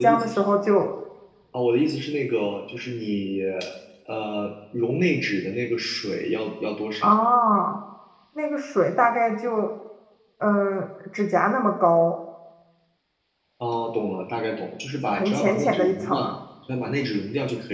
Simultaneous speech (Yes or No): Yes